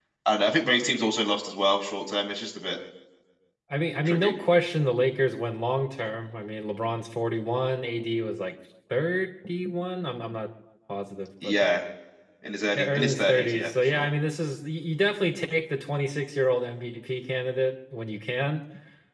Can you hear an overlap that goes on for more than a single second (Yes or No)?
Yes